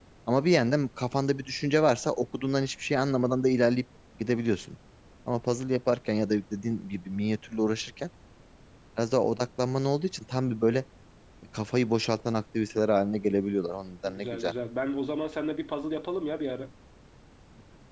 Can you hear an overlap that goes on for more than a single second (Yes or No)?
No